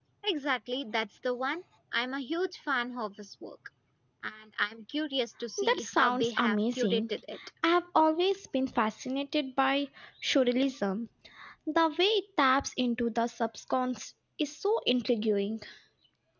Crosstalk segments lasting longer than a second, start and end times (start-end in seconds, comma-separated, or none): 5.6-7.0